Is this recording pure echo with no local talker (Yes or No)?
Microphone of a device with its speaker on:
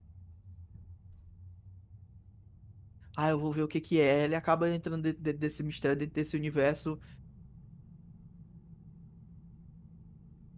No